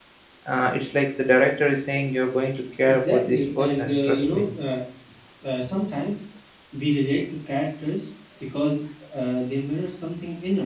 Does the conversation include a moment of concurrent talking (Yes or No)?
Yes